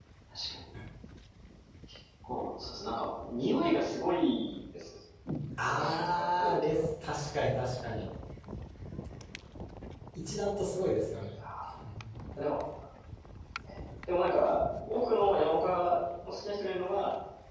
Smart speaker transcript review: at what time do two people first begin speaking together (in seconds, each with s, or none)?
5.6 s